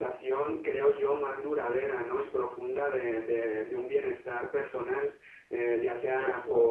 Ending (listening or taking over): listening